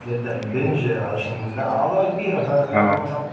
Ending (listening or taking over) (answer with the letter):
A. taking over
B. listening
B